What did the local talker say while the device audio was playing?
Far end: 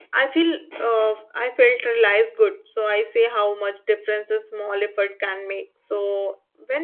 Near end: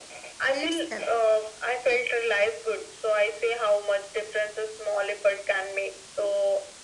plates help.

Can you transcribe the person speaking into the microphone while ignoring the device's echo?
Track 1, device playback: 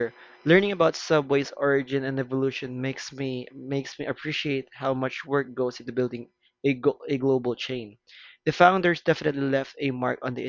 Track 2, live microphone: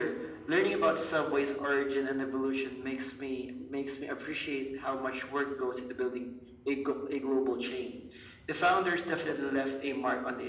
none

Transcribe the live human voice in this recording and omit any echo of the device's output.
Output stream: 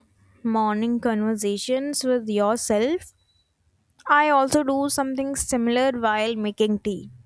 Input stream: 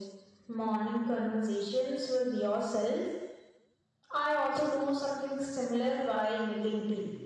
none

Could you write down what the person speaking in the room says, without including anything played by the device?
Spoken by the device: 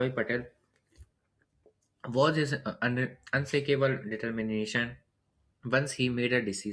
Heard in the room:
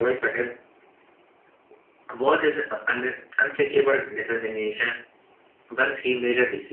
none

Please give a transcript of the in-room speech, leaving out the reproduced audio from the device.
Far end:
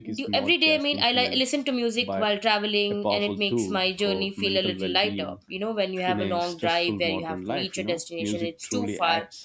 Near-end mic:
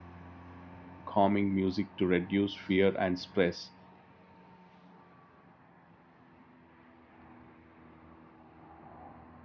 calming music to reduce fear and stress

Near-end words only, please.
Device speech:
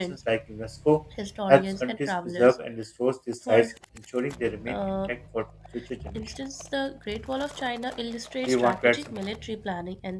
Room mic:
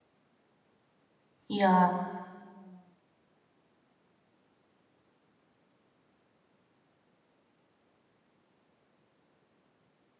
Yeah,

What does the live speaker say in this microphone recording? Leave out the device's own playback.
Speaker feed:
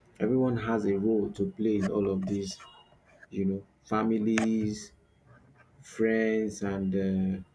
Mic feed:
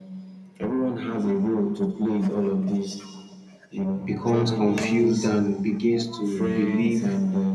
becomes confused and begins to believe

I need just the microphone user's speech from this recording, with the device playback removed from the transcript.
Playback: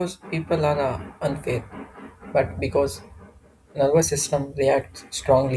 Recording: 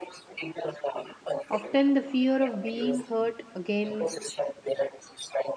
Often, the fear of being hurt again

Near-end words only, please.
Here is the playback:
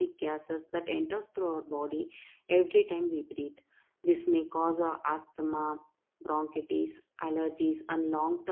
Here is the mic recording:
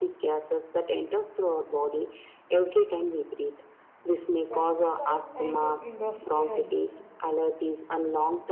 pesticides, and industrial

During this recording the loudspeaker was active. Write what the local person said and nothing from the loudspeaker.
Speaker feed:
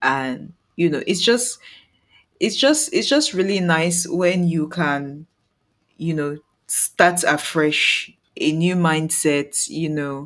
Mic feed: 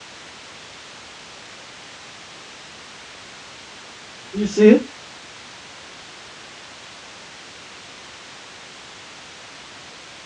you see.

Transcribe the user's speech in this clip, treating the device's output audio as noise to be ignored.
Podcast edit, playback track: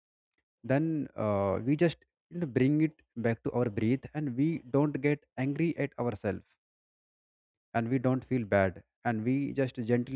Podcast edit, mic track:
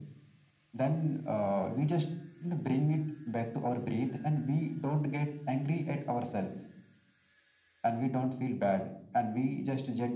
none

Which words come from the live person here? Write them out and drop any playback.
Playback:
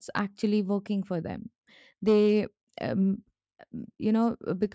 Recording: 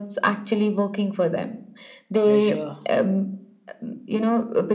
pleasure

